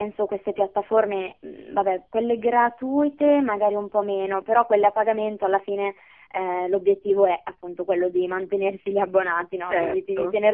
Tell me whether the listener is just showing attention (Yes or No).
Yes